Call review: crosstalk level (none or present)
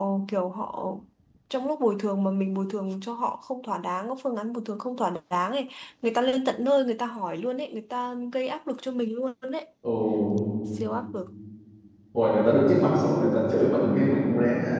none